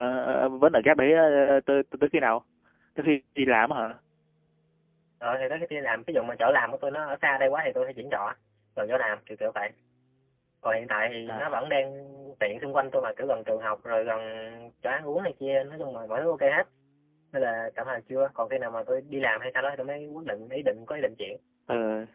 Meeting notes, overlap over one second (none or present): none